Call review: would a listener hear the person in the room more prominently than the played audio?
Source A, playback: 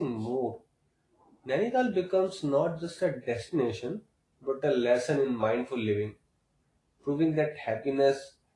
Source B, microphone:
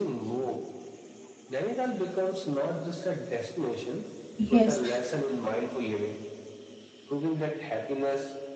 Yes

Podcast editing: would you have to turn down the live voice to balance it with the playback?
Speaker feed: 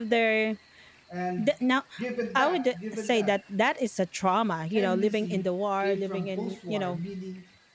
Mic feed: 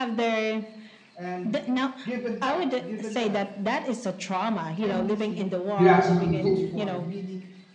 Yes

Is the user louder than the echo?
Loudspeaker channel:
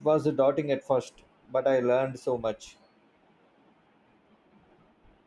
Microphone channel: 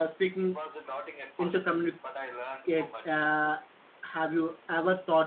Yes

